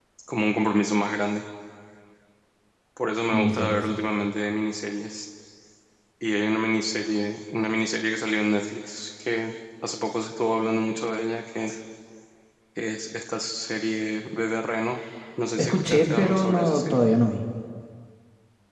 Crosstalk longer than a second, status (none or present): present